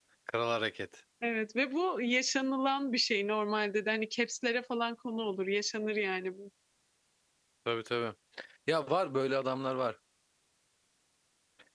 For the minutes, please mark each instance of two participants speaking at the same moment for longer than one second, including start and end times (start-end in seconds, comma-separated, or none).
none